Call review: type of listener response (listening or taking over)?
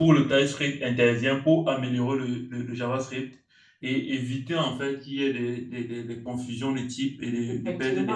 taking over